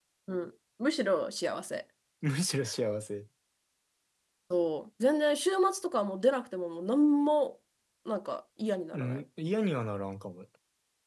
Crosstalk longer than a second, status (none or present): none